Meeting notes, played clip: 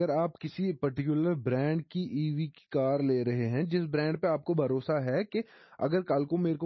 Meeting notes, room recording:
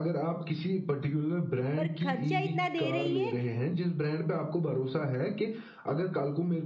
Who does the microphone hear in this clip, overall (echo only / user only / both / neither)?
both